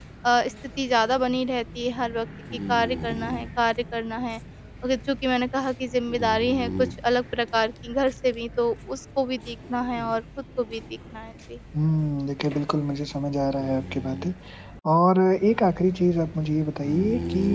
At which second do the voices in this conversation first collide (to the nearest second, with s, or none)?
none